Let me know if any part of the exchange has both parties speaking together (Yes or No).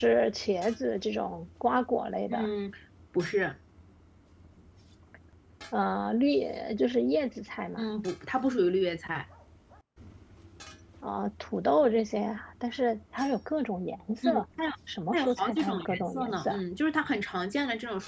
Yes